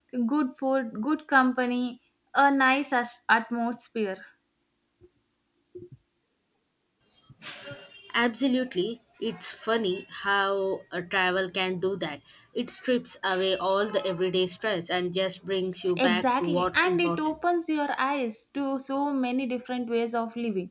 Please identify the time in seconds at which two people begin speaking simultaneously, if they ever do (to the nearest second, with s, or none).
16 s